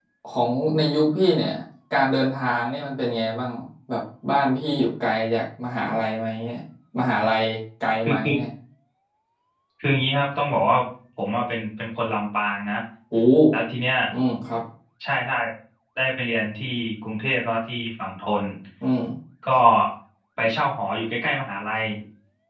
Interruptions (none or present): none